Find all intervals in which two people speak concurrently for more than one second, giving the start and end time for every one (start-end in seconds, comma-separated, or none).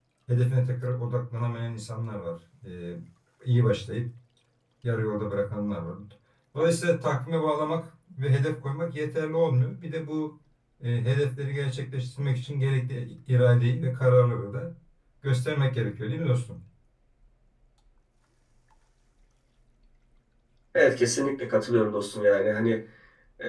none